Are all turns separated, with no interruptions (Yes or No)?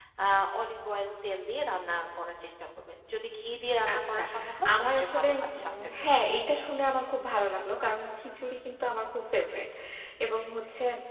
No